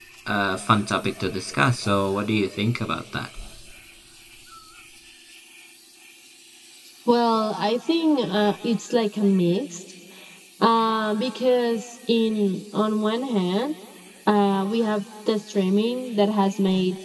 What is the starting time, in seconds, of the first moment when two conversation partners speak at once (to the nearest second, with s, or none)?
none